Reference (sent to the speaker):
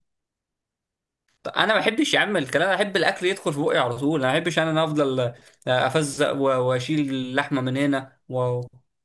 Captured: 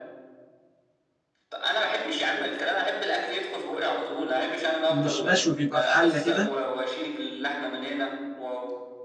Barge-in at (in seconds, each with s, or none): 4.9 s